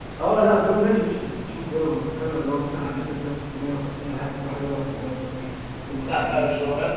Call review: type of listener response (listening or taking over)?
taking over